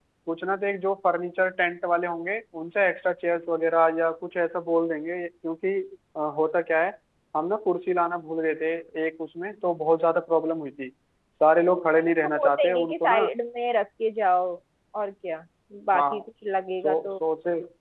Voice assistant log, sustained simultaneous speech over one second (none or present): present